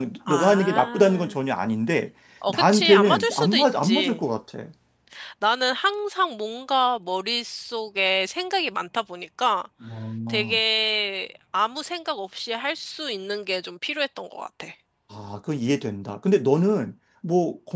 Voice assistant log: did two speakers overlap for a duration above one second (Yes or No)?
Yes